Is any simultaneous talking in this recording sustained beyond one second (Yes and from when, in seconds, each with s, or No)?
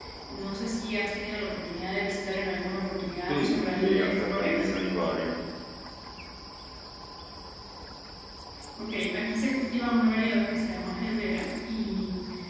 Yes, from 3.3 s